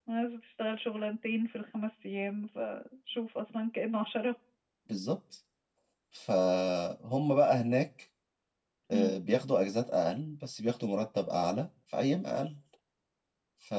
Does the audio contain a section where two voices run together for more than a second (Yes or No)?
No